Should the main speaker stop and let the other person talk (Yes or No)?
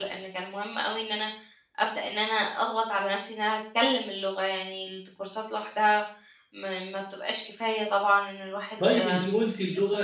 Yes